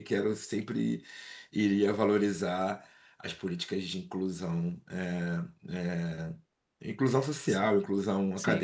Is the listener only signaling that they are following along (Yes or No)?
No